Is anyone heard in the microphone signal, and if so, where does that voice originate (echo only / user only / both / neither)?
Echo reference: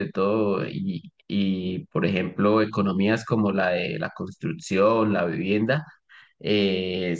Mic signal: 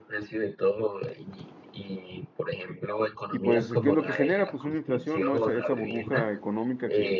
both